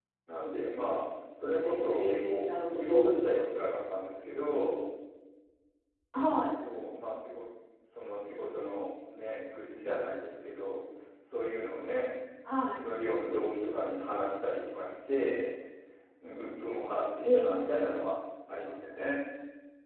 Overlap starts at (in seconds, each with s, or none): 1.5 s